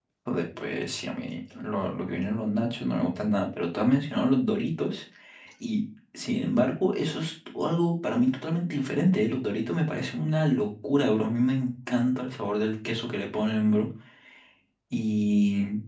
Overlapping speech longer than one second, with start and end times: none

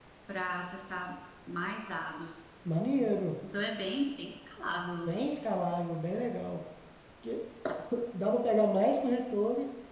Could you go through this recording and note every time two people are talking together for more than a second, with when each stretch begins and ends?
none

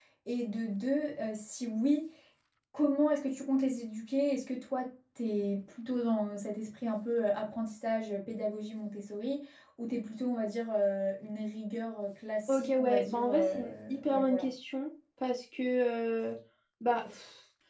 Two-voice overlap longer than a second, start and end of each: 12.5-14.5

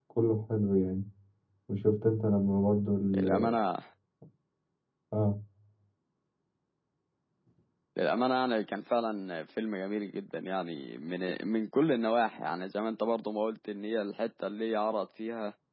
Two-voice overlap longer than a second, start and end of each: none

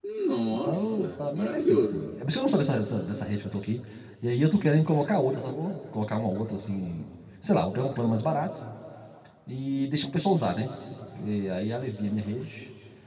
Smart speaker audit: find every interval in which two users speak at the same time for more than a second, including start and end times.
0.5-2.1

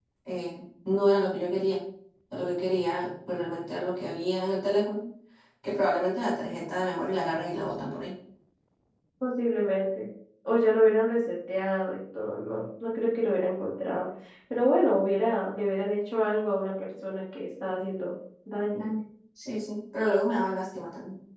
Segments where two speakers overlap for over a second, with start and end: none

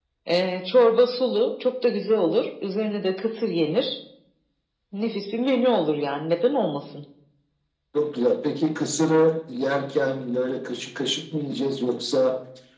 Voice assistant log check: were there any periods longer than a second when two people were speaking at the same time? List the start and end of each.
none

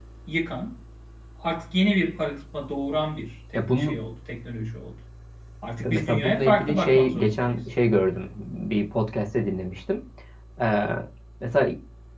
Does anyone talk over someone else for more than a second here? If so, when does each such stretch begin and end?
5.9-7.6

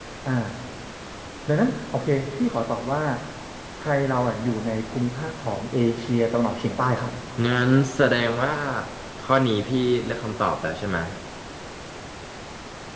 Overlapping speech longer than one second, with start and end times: none

